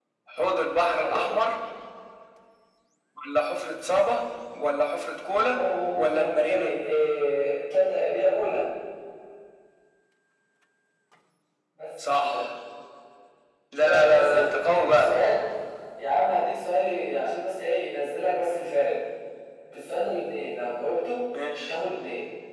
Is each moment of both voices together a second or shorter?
No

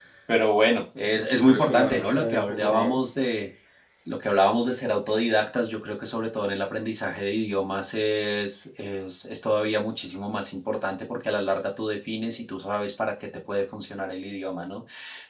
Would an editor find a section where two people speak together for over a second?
Yes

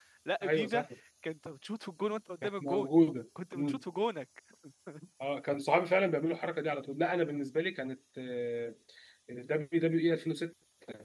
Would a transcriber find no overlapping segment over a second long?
Yes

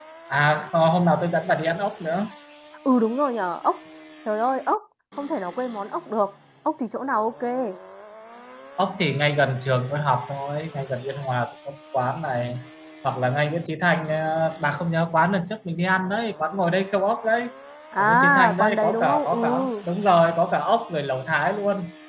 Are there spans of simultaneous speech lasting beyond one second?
Yes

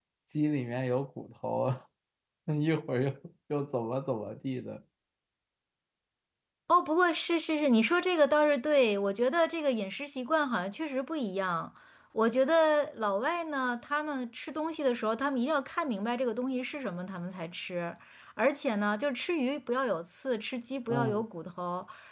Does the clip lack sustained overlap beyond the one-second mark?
Yes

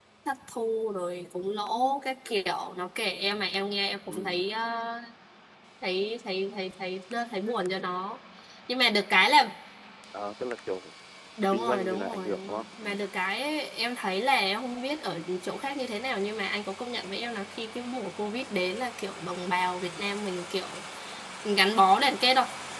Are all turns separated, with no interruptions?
No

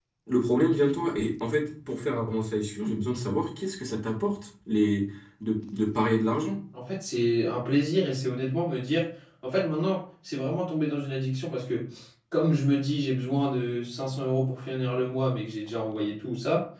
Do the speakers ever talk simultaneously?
No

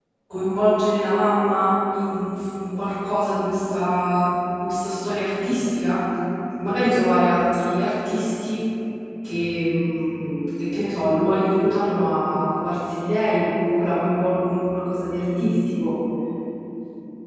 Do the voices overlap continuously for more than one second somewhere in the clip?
No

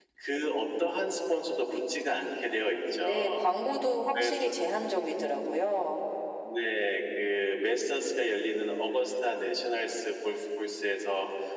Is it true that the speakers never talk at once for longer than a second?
Yes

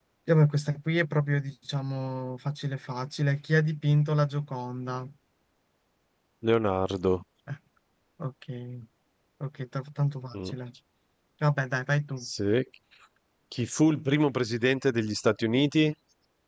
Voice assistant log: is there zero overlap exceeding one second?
Yes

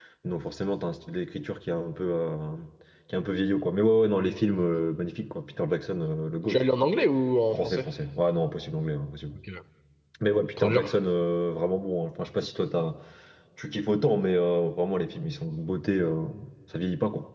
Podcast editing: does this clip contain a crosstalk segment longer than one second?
No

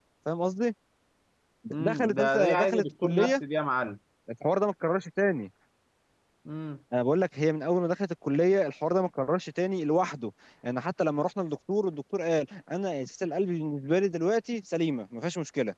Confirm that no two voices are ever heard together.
No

